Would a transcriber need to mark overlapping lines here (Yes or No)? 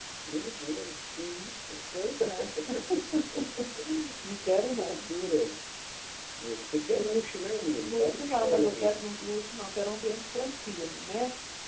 Yes